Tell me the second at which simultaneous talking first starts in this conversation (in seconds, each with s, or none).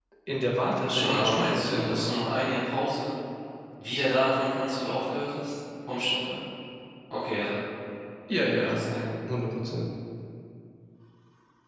0.7 s